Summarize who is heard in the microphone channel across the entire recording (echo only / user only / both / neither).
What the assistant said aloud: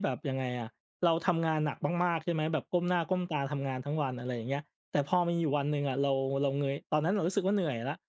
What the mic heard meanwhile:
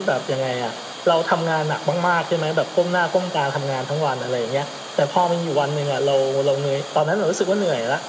echo only